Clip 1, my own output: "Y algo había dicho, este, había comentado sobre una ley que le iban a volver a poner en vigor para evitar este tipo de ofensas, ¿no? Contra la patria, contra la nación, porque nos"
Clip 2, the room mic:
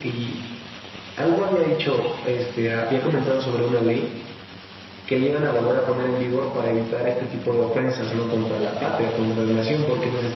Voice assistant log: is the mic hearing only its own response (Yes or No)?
Yes